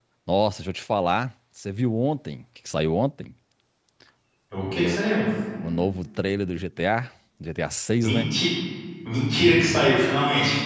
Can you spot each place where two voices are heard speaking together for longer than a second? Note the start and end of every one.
none

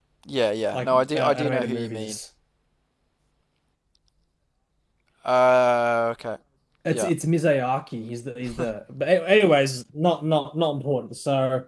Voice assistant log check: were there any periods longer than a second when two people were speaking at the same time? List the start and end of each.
0.7-2.2

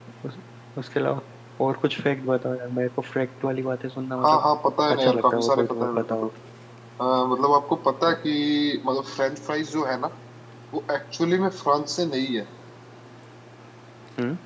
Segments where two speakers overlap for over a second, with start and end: 4.9-6.3

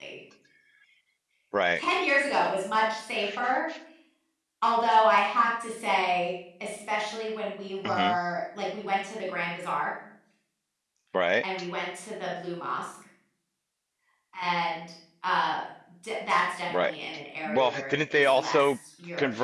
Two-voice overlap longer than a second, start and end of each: 17.5-18.7

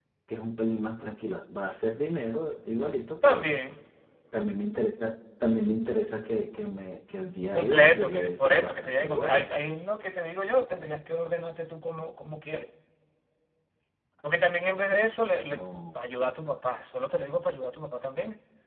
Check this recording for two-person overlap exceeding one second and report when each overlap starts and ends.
7.5-9.5

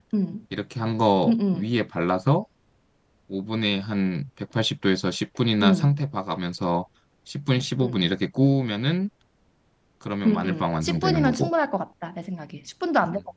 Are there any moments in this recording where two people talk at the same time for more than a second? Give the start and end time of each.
10.2-11.5

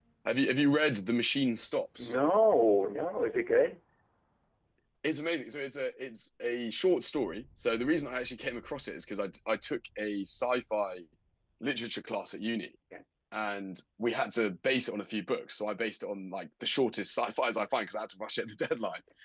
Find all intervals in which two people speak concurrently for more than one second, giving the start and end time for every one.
none

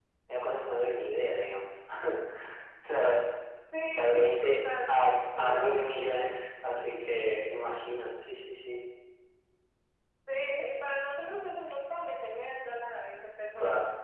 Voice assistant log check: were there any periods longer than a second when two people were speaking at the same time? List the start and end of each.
4.0-6.5

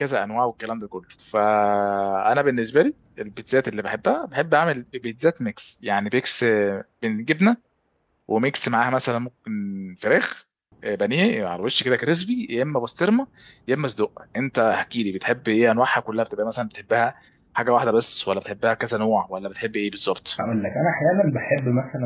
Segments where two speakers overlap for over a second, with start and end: none

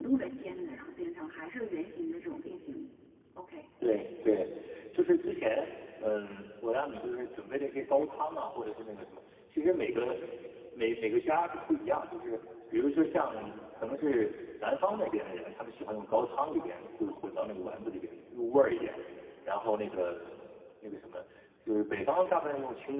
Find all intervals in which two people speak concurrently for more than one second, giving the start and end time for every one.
none

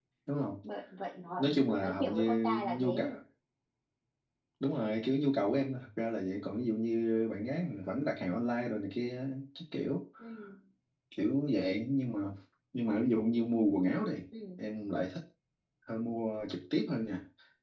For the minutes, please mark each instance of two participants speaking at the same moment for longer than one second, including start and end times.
1.4-3.1

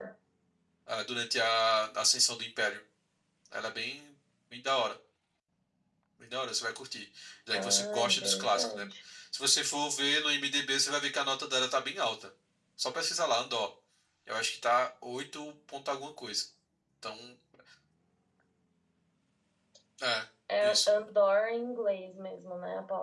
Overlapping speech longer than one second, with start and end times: 7.5-8.8

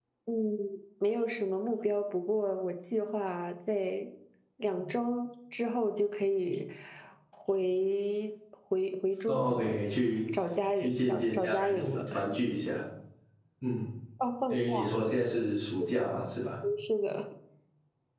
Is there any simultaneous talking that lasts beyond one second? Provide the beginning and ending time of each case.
10.8-12.0

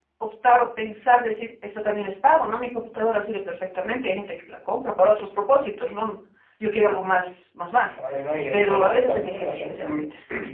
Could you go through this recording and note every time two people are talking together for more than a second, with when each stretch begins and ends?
8.5-10.0

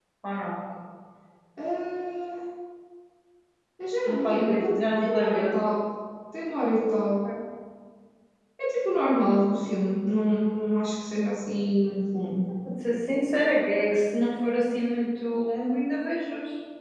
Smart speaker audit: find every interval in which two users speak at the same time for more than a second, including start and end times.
4.1-5.5

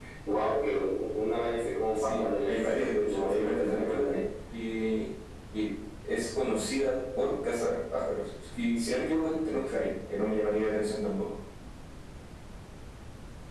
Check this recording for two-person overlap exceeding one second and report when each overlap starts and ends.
1.9-4.2

